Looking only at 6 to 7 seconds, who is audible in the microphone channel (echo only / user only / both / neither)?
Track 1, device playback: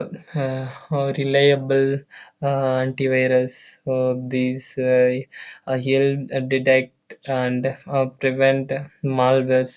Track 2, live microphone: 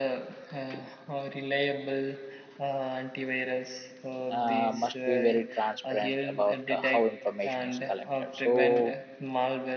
both